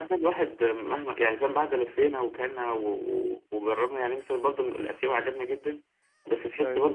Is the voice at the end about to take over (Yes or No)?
No